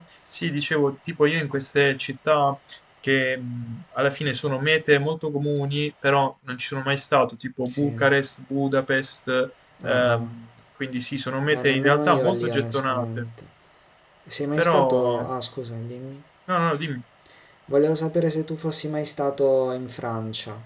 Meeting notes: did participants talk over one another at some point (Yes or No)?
Yes